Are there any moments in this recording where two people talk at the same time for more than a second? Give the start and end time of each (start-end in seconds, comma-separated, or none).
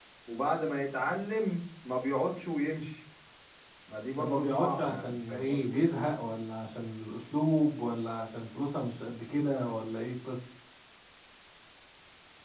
4.2-5.8